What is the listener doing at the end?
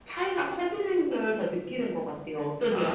taking over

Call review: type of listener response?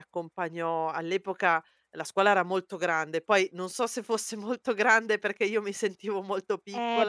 taking over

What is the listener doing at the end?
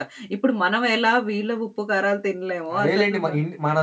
taking over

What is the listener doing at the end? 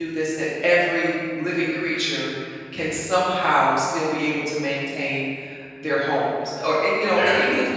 listening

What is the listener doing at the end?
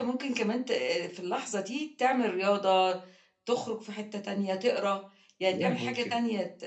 listening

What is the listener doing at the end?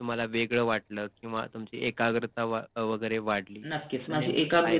taking over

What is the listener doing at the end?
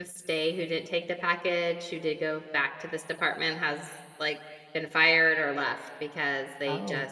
listening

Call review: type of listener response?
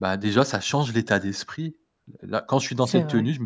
listening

